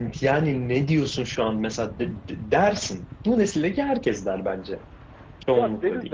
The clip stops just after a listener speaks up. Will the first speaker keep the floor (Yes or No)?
No